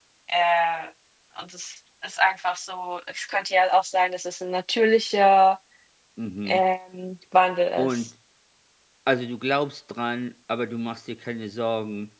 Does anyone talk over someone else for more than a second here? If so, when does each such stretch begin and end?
none

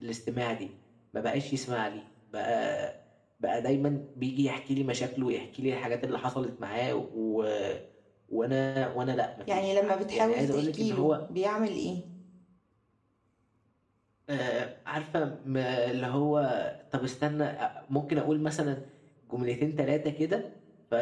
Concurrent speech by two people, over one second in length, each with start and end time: 9.5-11.2

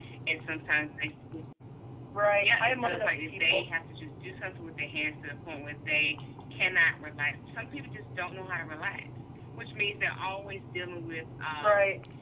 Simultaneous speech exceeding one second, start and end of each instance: 2.4-3.6

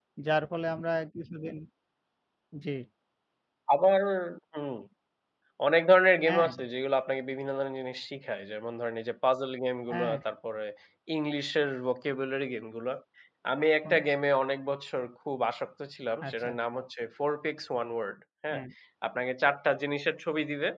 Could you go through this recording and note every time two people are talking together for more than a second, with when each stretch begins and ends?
none

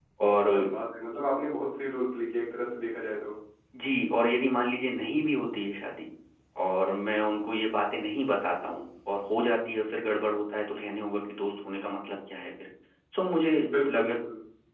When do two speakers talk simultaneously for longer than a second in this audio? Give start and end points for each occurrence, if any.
none

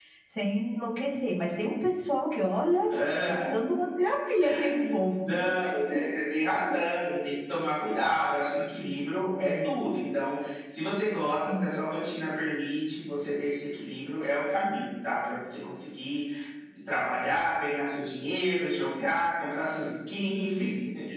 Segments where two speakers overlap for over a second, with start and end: none

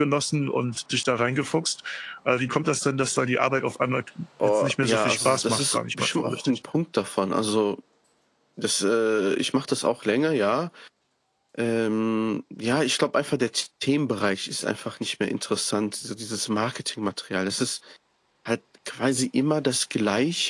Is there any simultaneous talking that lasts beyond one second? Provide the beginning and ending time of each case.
4.4-6.6

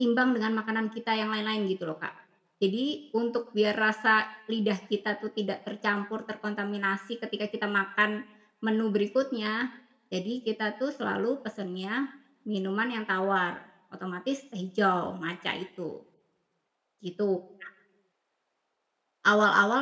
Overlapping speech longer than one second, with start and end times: none

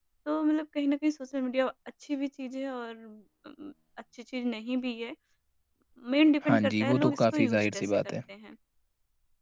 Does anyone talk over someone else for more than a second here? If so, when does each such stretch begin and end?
6.5-8.0

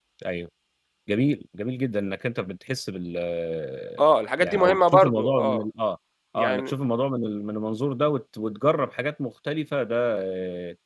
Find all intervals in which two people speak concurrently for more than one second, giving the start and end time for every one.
4.4-5.6

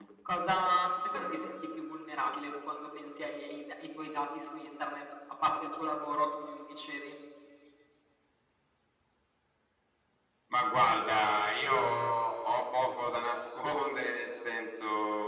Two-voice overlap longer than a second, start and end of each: none

